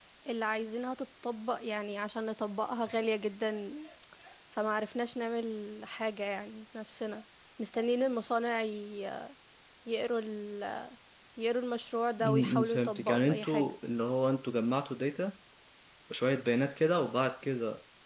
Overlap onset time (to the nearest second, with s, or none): 12 s